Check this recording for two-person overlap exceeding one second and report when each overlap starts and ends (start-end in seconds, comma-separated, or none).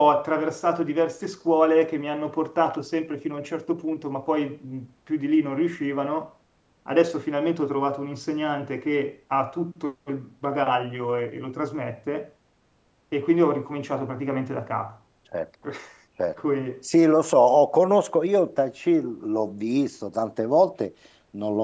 none